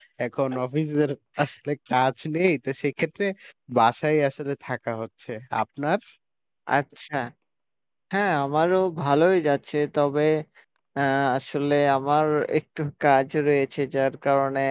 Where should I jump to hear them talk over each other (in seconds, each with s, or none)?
none